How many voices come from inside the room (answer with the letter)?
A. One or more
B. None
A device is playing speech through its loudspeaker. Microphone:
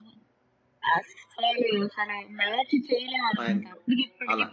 A